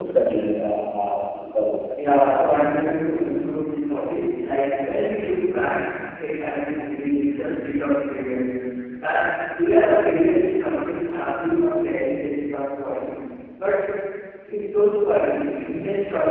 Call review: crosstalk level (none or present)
none